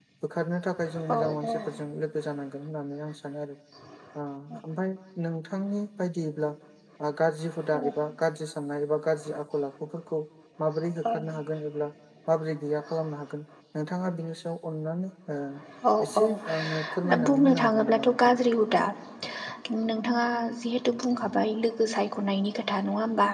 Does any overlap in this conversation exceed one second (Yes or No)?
Yes